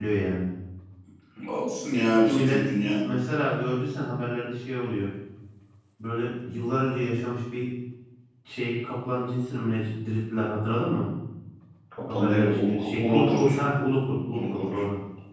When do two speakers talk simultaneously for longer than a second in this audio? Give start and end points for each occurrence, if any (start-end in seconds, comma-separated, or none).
12.1-13.5